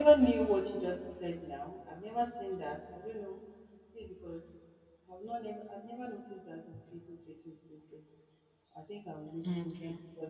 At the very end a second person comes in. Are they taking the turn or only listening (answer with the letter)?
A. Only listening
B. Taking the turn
A